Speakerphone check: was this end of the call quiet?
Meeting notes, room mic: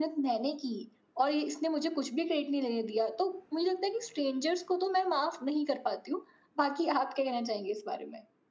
Yes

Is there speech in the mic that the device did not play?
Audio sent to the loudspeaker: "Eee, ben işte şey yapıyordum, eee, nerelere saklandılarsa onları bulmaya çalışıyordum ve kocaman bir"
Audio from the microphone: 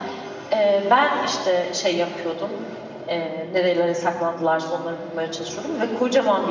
No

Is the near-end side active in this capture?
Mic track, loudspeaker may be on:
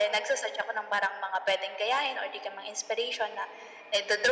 No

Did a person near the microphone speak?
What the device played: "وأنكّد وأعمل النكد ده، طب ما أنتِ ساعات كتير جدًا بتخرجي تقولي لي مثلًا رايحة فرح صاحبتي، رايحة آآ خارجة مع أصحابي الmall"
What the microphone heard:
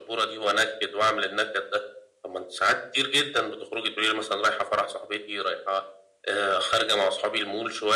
No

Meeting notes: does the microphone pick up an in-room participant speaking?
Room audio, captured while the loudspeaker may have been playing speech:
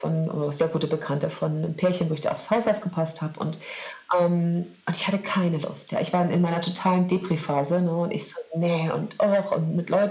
No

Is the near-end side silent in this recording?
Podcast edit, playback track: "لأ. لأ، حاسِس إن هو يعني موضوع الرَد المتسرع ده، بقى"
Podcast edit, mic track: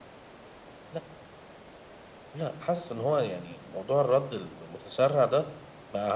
Yes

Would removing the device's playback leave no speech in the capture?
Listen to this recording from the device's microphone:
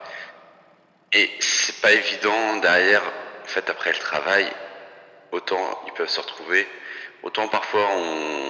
Yes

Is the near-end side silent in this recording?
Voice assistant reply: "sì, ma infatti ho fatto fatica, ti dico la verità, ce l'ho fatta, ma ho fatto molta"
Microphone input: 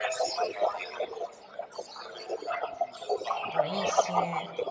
No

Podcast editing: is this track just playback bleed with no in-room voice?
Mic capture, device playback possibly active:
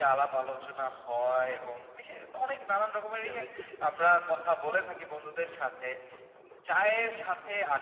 No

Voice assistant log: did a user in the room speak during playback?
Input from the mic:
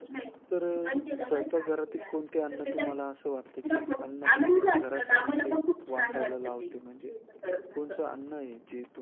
Yes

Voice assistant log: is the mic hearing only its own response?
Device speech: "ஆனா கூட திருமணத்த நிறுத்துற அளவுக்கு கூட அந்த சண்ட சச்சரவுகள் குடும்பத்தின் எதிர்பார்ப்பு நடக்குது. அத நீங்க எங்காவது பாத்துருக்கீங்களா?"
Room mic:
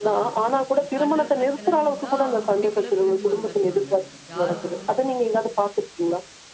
No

